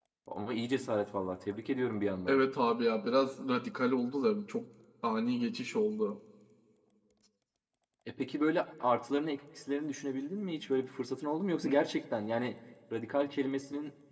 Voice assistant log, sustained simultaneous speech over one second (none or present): none